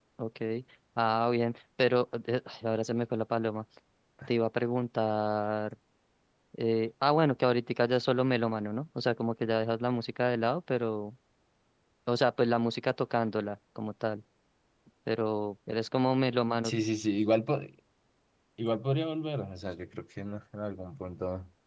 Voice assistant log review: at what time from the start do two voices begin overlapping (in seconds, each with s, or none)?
none